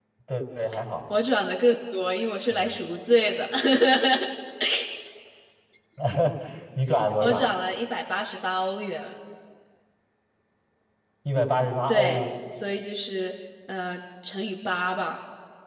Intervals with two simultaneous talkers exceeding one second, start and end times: none

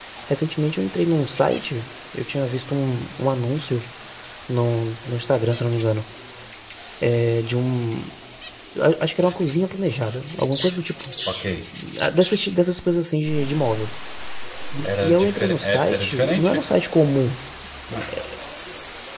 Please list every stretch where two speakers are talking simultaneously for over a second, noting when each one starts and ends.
14.8-16.6

